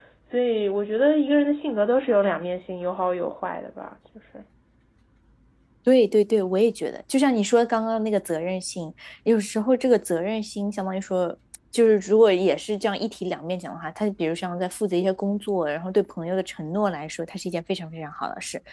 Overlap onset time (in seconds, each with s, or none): none